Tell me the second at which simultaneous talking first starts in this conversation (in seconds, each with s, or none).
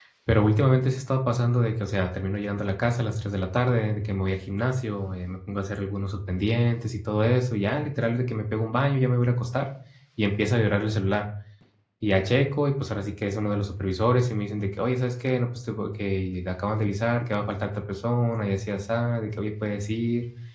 none